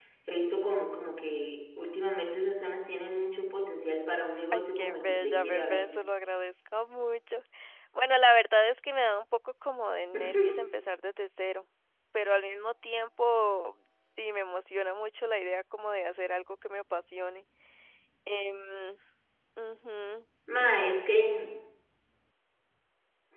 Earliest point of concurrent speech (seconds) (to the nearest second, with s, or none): 5 s